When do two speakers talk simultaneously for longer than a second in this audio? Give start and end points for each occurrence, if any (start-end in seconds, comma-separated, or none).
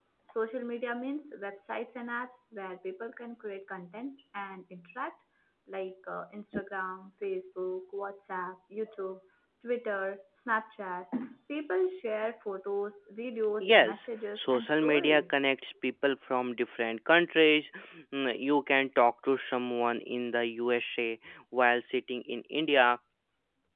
13.6-15.4